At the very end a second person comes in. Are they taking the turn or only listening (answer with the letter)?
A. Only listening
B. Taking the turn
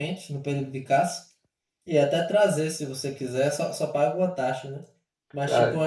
A